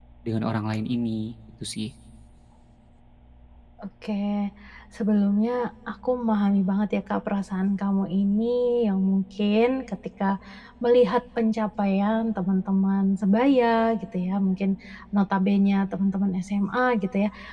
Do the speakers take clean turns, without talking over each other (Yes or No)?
Yes